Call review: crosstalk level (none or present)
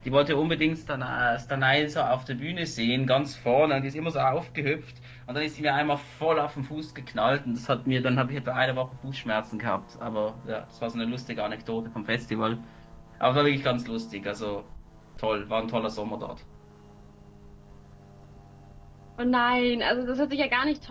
none